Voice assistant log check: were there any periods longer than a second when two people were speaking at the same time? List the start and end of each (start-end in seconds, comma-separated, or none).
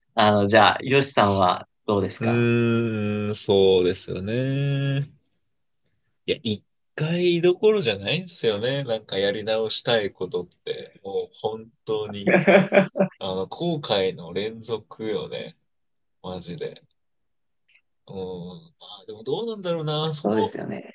none